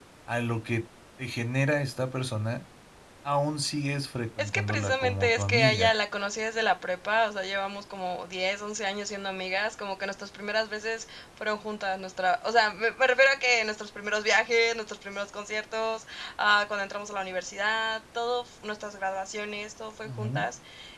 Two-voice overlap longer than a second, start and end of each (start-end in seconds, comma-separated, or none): 4.4-5.9